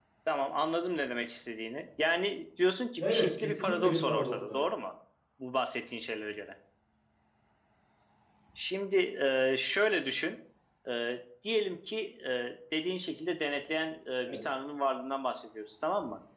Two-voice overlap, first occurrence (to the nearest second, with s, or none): 3 s